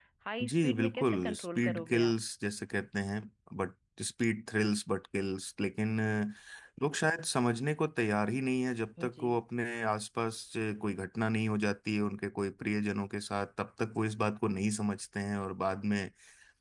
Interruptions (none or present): present